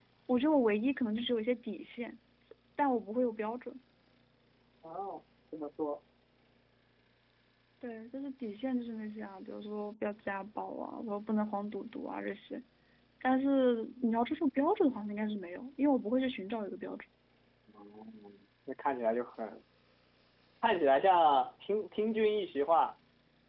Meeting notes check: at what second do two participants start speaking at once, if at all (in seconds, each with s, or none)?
none